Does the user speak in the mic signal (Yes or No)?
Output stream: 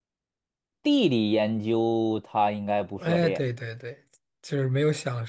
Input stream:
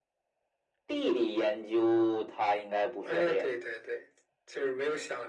No